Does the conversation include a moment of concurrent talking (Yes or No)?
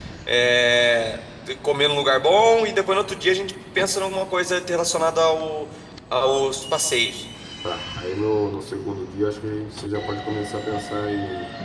No